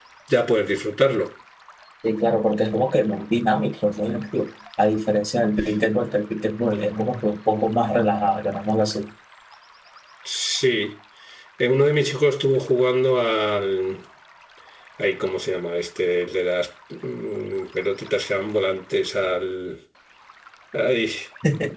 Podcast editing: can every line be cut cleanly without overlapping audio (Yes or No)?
Yes